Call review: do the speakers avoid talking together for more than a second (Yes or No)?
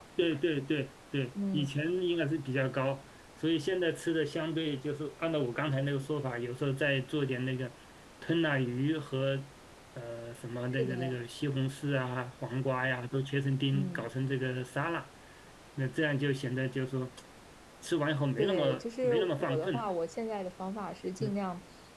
No